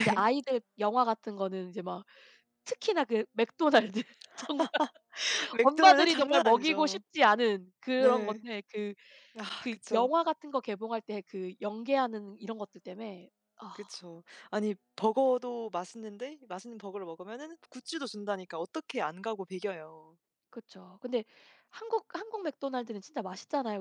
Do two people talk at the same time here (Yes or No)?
Yes